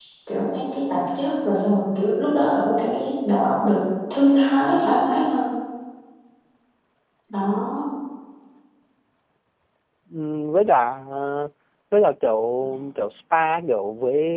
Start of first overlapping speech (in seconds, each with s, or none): none